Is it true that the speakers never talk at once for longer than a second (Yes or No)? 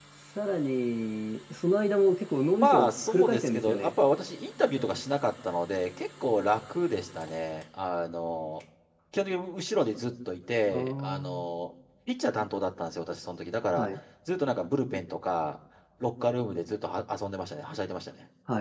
No